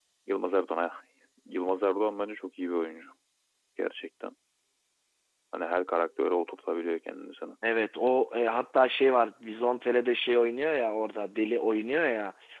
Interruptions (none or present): none